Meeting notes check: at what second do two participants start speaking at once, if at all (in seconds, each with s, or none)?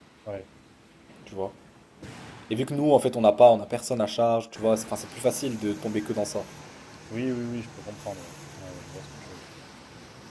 none